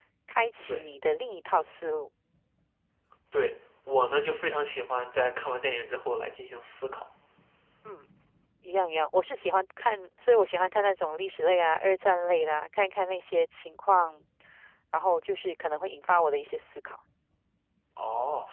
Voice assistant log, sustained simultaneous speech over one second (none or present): none